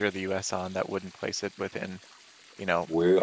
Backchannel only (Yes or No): Yes